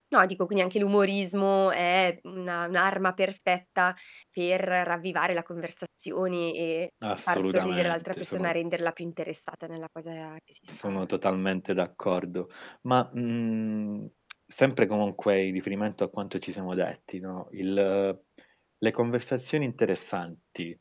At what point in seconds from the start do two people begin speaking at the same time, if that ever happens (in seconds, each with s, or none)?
7.3 s